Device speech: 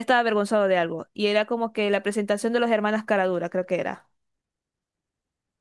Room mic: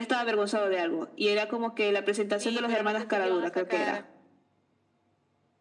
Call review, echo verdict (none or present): present